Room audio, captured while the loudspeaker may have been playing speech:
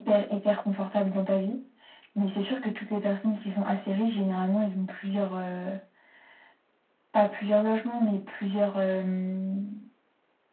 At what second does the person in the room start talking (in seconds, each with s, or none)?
none